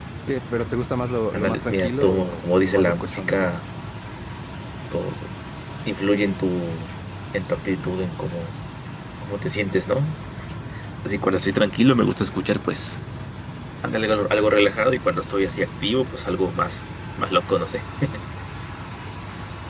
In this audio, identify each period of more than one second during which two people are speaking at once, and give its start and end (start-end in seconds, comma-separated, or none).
1.3-3.5